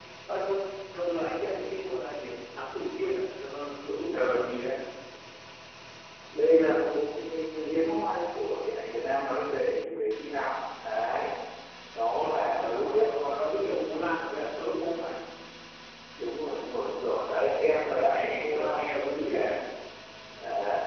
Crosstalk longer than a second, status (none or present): present